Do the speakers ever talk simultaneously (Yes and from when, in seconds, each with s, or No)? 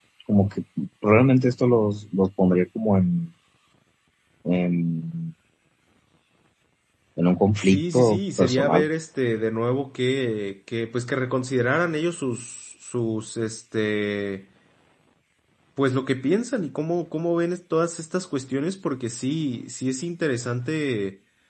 Yes, from 7.6 s